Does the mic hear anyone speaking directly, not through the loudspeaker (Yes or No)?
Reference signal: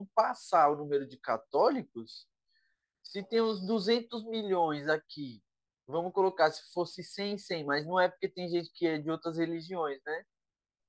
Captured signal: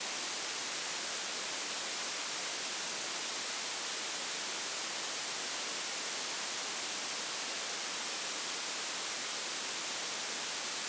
No